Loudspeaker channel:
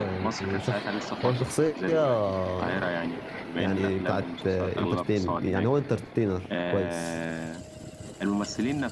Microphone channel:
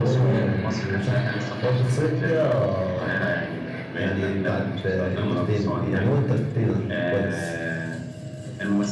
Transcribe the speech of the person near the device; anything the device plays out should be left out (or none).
none